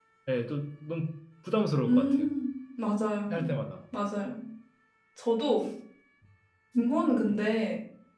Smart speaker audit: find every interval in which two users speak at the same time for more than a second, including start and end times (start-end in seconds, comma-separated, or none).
none